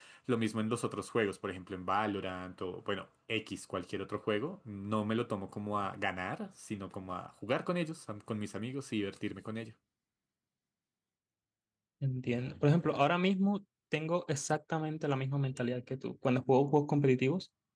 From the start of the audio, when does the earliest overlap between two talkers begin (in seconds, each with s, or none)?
none